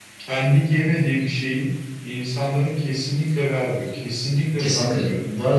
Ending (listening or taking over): taking over